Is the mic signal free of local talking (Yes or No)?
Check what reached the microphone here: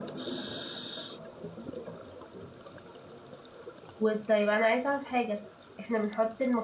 No